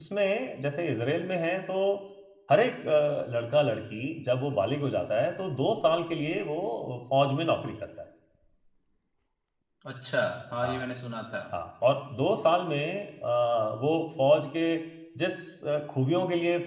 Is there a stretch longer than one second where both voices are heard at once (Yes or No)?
No